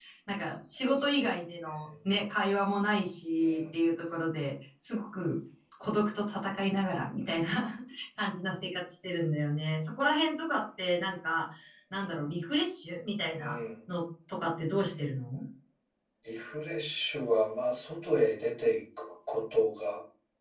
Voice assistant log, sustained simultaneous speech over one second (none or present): none